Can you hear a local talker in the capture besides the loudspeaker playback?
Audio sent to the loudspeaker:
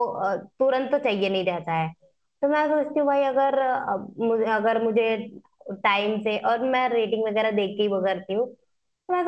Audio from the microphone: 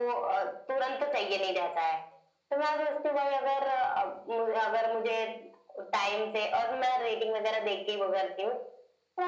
No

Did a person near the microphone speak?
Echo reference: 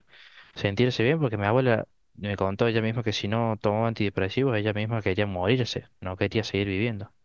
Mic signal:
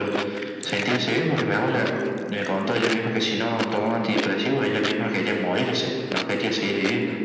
No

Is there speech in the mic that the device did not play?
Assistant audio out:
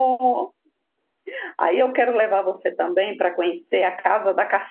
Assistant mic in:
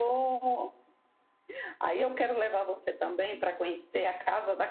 No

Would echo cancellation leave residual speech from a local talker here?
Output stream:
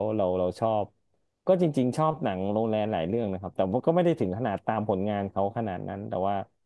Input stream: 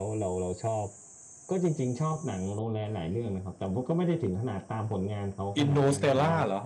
Yes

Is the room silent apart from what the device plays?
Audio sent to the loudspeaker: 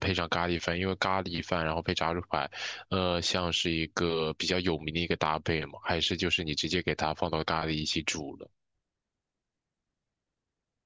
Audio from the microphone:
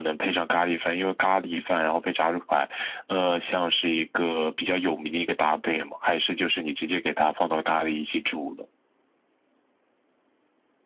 Yes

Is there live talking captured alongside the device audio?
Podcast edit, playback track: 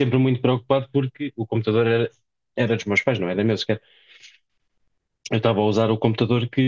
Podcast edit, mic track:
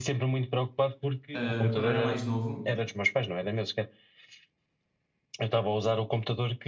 Yes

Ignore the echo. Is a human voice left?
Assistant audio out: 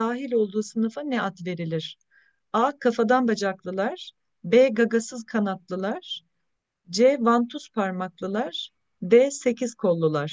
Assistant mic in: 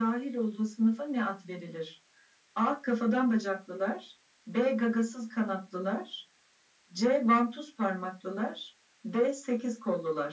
No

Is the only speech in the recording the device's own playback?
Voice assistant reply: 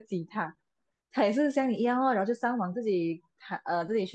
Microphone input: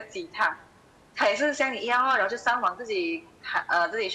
Yes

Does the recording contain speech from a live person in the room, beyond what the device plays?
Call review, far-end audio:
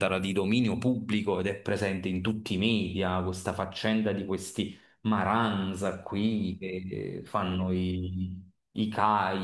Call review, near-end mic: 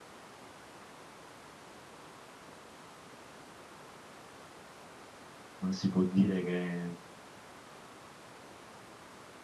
Yes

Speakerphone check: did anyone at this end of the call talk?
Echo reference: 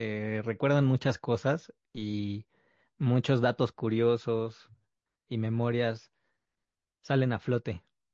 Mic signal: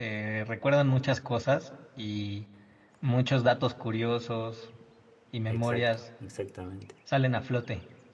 Yes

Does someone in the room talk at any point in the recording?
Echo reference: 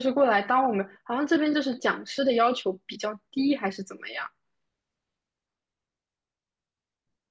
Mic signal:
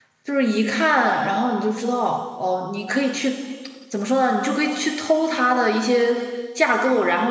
Yes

